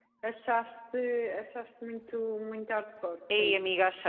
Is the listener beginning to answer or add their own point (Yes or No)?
Yes